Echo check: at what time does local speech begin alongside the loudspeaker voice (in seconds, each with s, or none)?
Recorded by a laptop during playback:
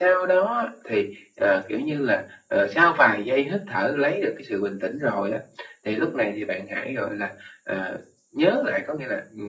none